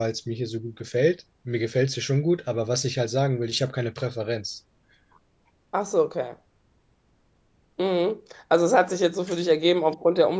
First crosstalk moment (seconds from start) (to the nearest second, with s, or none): none